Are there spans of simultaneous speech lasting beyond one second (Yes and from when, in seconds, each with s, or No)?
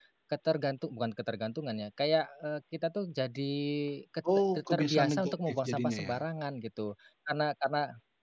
Yes, from 4.6 s